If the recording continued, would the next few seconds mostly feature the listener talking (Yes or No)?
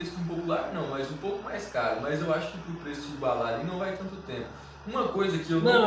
Yes